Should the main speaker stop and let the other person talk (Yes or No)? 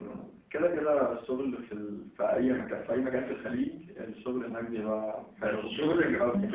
Yes